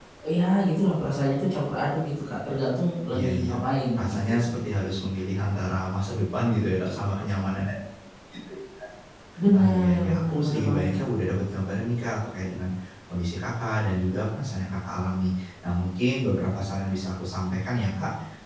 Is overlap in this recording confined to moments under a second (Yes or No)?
No